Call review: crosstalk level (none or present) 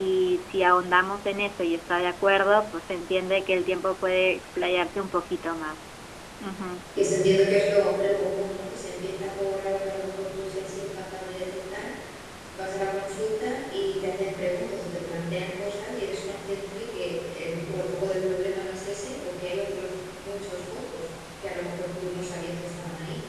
none